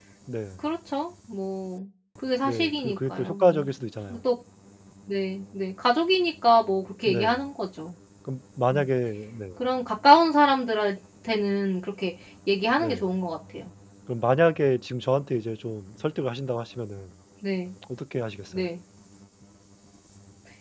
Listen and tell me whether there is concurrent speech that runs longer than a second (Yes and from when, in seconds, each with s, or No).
Yes, from 2.4 s